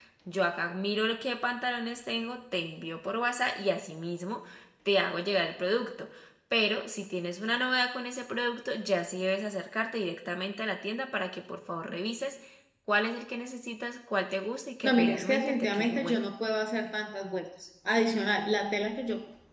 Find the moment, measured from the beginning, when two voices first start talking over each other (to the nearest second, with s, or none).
15 s